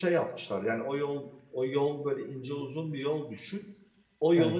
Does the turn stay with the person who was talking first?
Yes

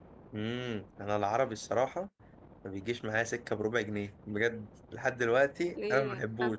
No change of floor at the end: No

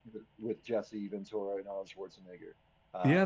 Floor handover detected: Yes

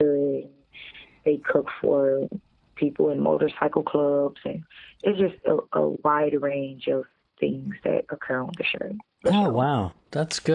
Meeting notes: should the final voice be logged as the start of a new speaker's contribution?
Yes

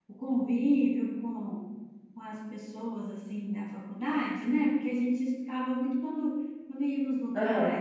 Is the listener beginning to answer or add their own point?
No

